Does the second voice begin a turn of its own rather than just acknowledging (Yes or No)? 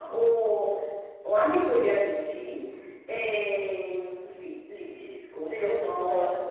Yes